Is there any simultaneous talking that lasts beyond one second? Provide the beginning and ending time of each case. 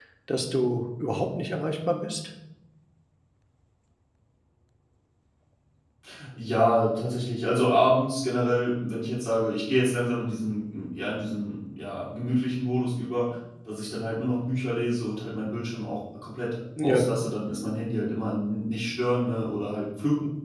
none

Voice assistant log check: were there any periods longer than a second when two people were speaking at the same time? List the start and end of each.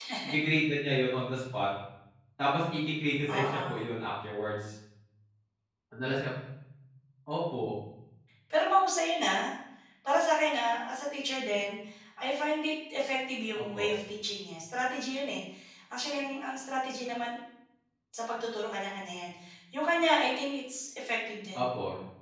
none

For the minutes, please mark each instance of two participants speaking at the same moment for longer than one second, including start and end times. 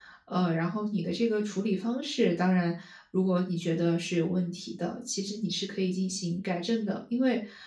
none

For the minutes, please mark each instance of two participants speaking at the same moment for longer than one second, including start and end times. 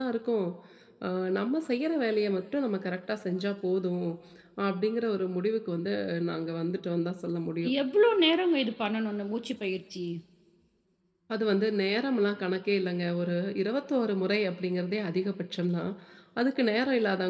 none

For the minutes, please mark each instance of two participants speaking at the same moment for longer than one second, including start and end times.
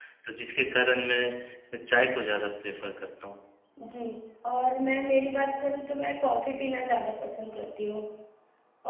none

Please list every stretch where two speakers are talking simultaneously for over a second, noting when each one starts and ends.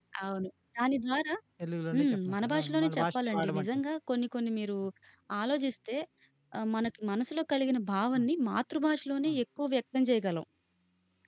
1.9-3.8

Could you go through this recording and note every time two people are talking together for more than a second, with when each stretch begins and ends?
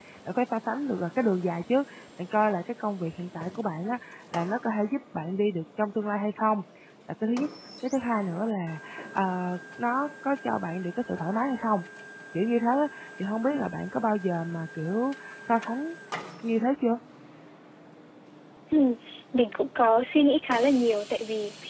none

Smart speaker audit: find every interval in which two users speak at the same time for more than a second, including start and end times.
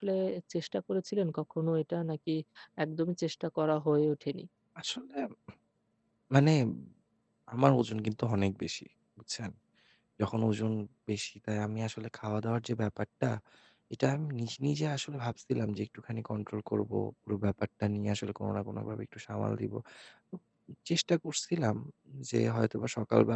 none

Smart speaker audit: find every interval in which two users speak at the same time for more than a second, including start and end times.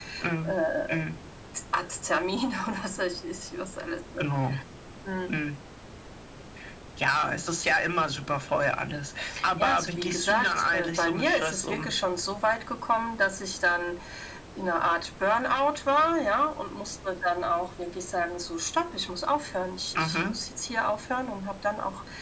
9.6-11.9

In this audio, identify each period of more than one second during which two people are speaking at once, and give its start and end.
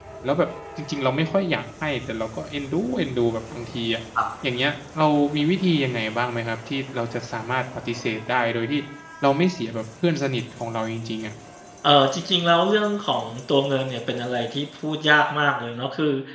none

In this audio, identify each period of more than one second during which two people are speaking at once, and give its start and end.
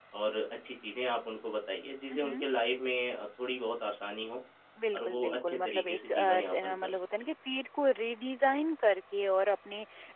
4.9-7.3

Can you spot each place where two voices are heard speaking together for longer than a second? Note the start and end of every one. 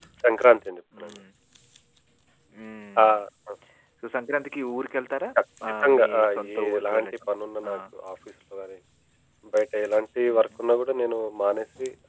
5.8-7.1

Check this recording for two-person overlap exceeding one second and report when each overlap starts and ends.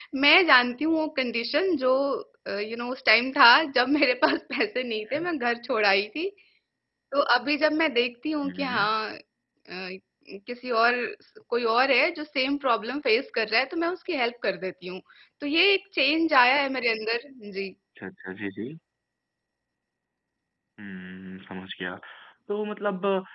none

